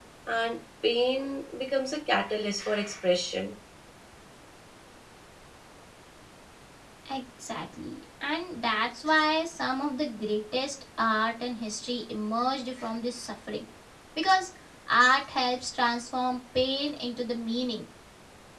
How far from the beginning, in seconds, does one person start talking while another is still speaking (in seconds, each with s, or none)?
none